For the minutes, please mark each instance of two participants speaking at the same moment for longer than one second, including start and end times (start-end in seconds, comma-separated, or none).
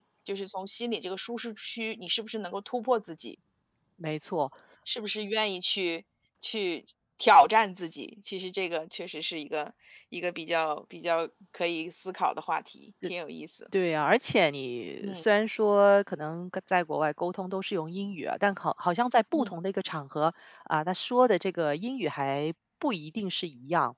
none